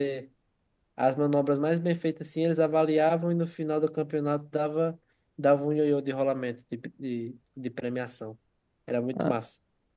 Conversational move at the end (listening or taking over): taking over